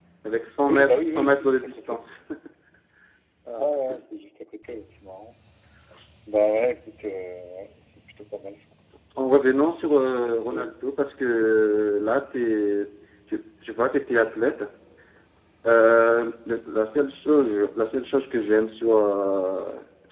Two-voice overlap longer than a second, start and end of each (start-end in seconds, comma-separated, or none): 0.7-2.0